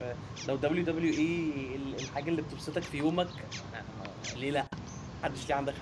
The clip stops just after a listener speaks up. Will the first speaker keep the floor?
No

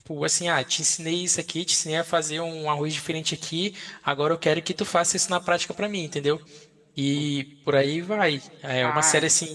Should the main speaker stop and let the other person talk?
No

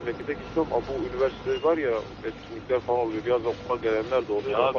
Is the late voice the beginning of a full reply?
Yes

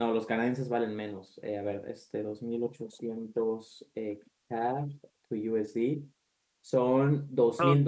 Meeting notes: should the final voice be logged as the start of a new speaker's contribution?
No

